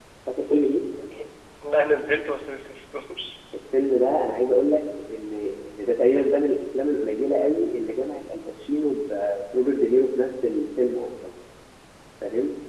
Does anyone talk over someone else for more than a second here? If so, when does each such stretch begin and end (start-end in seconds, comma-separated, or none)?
none